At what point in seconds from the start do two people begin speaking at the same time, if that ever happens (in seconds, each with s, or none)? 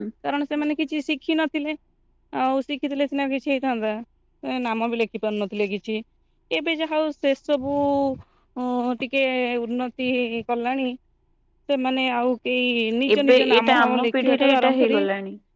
13.1 s